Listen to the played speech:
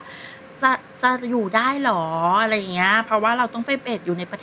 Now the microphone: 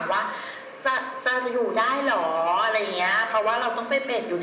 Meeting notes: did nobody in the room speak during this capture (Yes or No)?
Yes